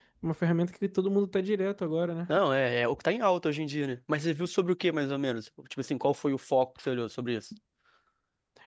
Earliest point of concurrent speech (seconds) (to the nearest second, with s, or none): none